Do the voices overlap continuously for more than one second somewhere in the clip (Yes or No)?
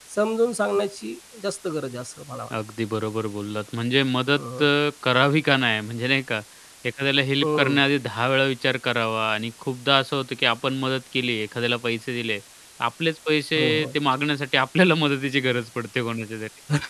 No